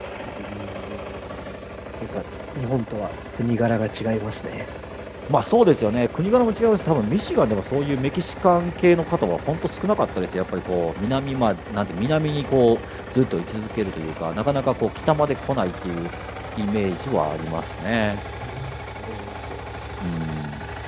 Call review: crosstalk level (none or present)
none